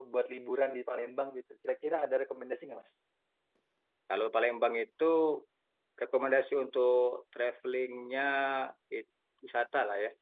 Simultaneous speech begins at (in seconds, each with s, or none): none